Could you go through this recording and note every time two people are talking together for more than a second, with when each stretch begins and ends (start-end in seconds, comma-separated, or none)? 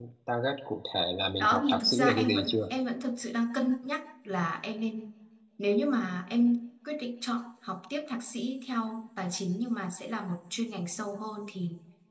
1.4-2.8